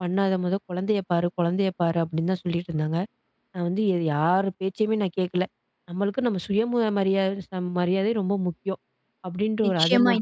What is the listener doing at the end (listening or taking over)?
taking over